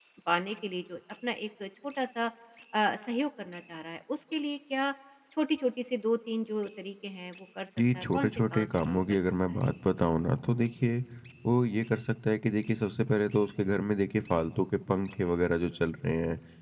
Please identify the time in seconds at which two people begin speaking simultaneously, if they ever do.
7.8 s

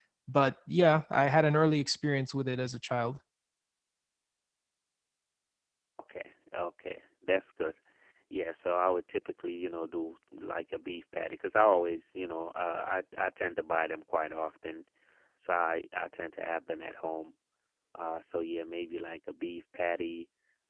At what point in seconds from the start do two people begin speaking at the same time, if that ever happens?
none

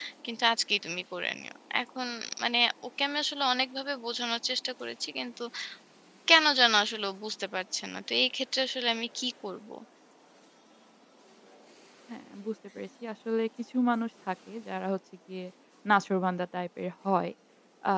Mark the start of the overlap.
none

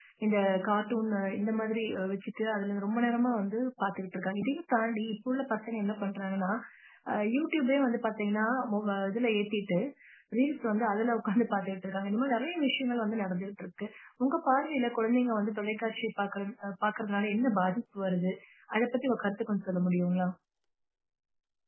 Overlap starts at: none

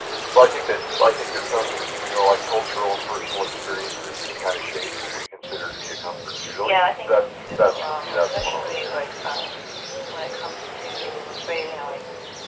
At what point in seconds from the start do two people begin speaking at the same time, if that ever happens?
6.4 s

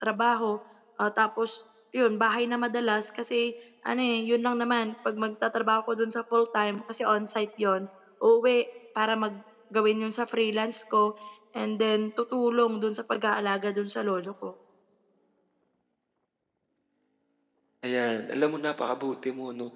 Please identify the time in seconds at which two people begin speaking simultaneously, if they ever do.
none

